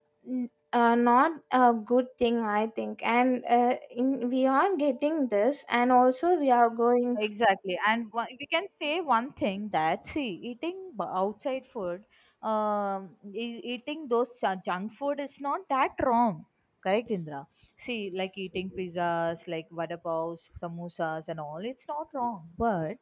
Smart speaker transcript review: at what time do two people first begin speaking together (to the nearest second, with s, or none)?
none